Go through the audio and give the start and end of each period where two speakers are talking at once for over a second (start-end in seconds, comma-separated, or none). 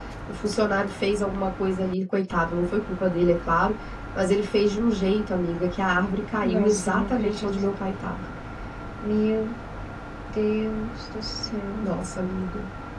6.4-7.6